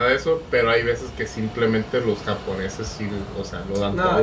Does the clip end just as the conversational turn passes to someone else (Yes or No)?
Yes